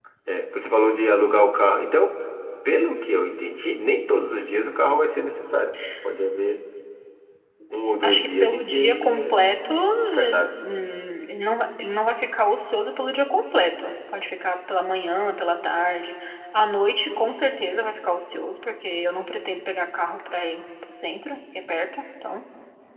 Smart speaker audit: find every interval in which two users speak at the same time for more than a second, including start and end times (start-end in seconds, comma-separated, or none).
8.0-9.4